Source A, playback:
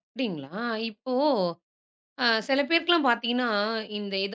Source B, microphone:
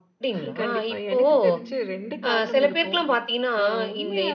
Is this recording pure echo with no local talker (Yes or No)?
No